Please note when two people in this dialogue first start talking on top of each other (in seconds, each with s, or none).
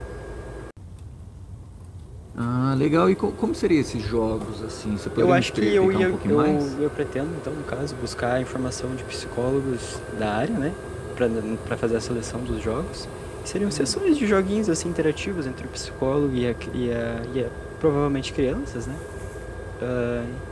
5.2 s